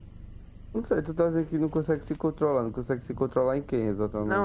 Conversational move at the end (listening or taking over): taking over